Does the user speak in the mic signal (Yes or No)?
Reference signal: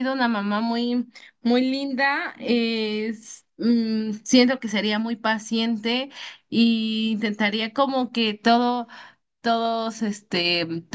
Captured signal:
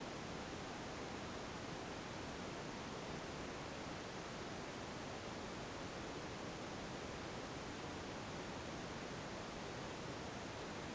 No